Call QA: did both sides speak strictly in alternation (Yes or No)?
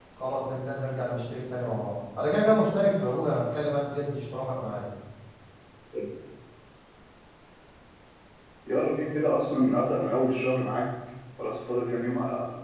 Yes